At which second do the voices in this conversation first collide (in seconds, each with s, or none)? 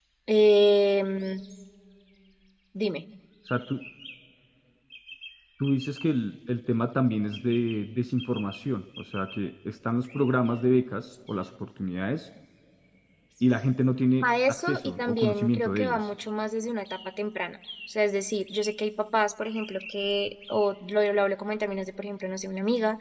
14.2 s